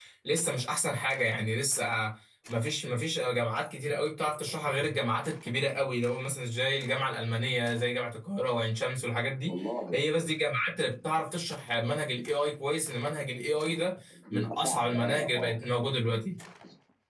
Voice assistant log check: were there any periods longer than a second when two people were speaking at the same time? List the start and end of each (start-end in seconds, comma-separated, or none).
14.3-15.6